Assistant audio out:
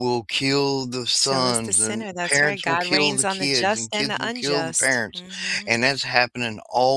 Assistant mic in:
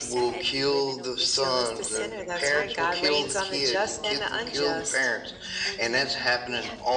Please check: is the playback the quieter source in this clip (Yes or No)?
No